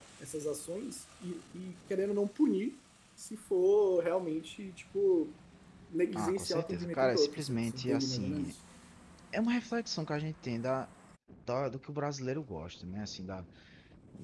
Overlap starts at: 6.2 s

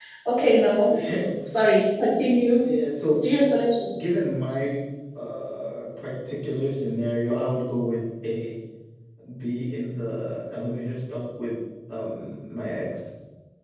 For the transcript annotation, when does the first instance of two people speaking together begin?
none

